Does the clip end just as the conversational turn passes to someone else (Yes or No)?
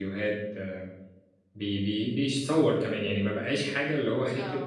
No